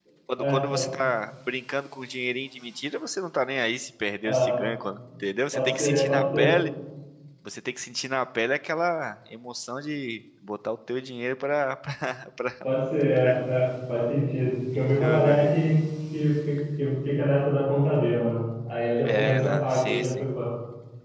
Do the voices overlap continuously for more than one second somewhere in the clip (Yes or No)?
Yes